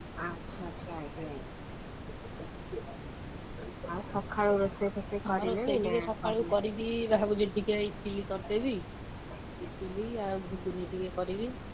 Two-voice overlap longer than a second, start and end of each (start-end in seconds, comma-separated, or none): 5.3-6.5